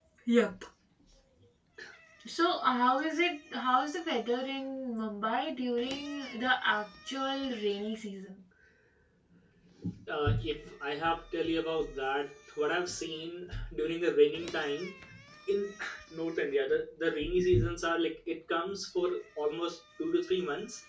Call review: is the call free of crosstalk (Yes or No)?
Yes